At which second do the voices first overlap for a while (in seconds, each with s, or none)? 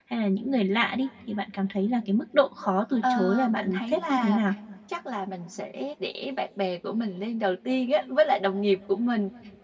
3.0 s